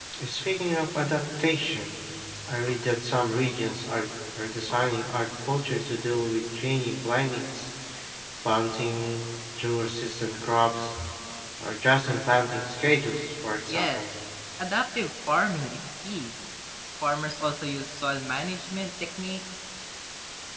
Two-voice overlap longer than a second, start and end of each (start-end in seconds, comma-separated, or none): none